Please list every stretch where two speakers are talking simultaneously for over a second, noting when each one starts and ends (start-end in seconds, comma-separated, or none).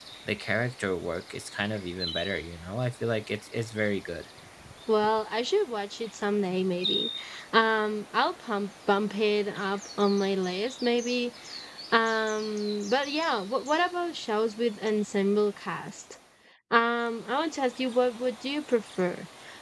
none